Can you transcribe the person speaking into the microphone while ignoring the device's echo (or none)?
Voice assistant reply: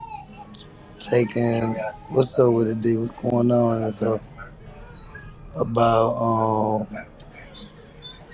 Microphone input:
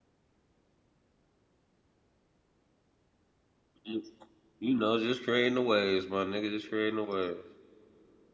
You know, just creating the waves, my nigga. Just creating the waves.